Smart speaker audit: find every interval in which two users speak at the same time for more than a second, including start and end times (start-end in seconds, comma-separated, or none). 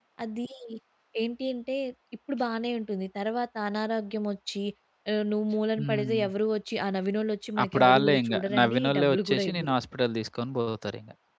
7.6-9.7